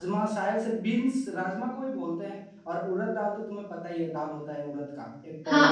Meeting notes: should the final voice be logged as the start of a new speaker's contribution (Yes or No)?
Yes